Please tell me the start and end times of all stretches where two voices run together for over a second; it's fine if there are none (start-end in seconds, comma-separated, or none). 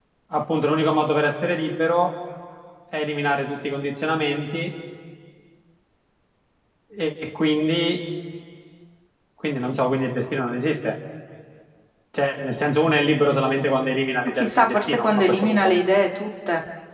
14.3-15.7